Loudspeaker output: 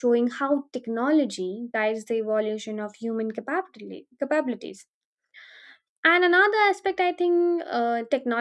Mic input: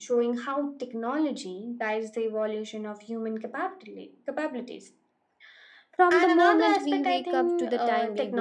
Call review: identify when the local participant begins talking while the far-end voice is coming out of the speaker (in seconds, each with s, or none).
6.0 s